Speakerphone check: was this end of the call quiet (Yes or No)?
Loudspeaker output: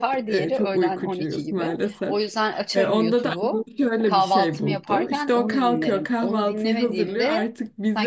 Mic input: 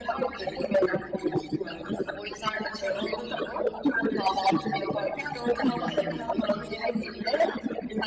No